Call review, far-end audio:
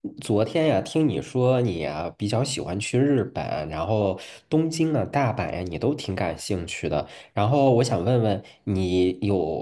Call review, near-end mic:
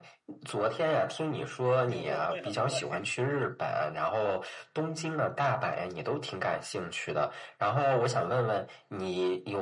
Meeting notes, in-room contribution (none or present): present